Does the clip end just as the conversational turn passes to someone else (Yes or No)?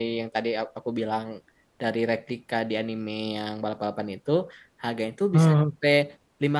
No